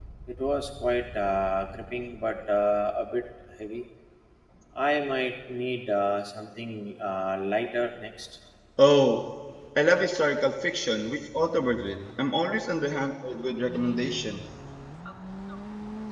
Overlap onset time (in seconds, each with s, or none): none